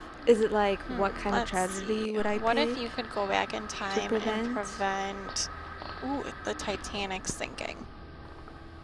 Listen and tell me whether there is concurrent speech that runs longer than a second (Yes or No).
Yes